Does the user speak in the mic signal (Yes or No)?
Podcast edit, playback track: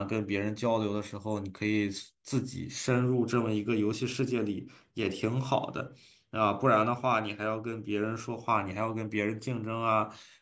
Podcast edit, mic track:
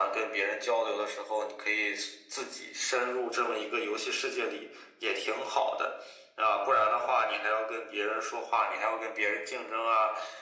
No